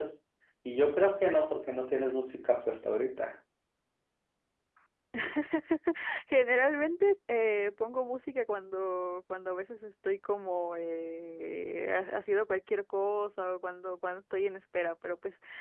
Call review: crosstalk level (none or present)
none